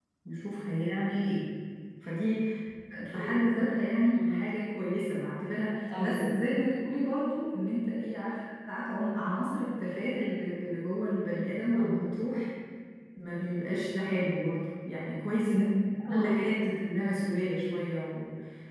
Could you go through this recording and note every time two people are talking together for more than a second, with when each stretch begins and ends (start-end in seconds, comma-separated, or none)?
none